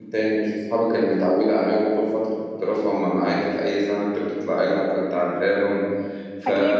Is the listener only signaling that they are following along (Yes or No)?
No